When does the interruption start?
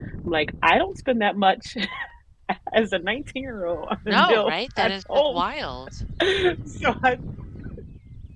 4.0 s

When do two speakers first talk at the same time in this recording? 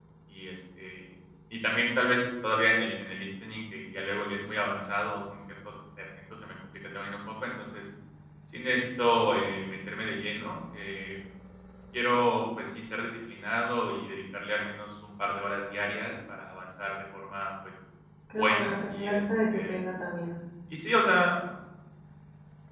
18.3 s

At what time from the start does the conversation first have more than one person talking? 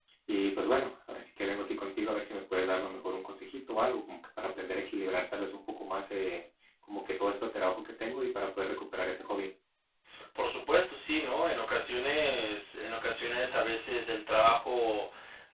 none

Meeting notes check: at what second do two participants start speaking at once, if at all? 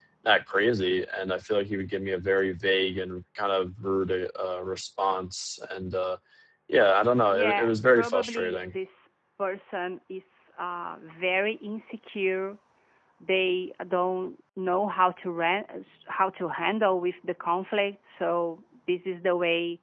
7.3 s

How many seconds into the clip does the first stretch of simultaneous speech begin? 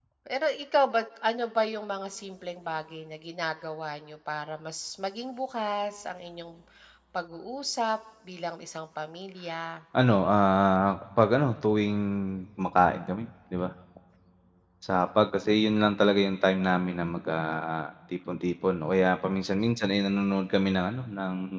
none

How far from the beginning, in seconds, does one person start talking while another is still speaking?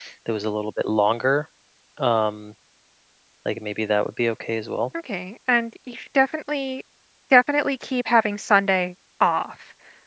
none

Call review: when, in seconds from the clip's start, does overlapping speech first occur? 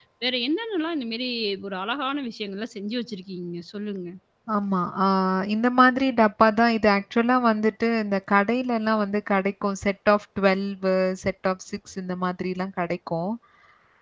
none

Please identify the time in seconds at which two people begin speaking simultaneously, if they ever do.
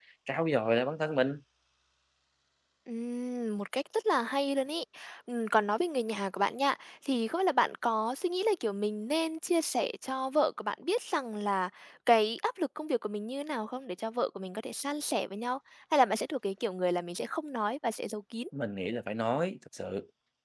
none

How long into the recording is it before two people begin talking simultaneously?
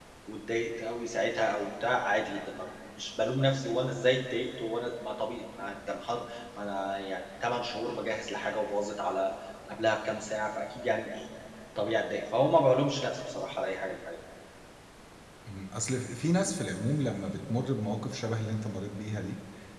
none

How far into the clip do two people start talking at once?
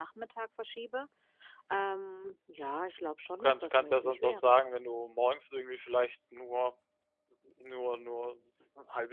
3.3 s

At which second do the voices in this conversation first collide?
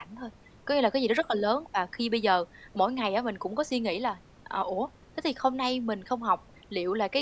none

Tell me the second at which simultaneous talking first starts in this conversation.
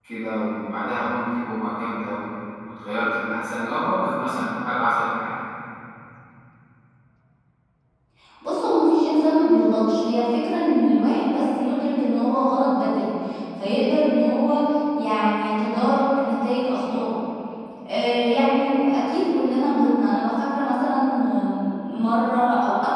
none

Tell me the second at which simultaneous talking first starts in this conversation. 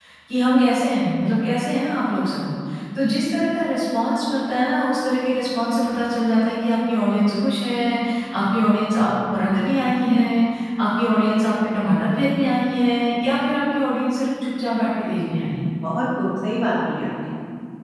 none

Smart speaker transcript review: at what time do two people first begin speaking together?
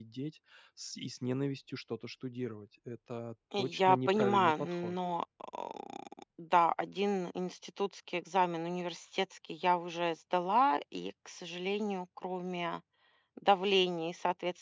3.5 s

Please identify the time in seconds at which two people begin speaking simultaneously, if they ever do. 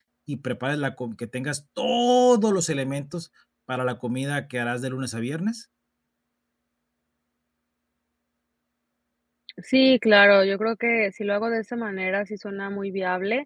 none

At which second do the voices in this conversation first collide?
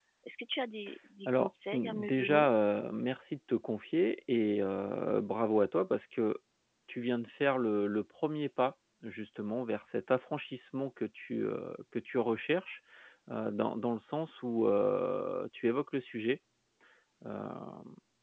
1.2 s

